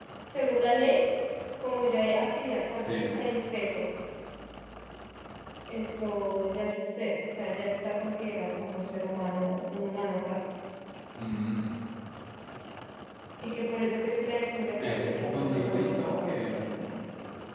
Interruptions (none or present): present